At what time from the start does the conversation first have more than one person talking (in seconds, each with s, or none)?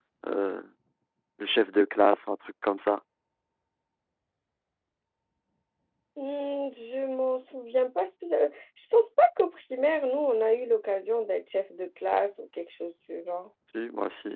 none